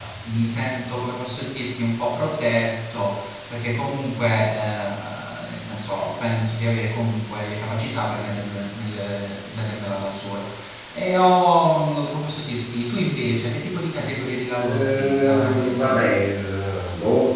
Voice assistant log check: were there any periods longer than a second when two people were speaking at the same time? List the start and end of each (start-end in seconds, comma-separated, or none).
14.6-16.1